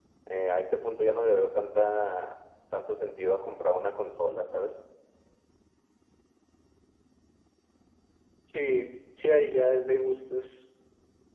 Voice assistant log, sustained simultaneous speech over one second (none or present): none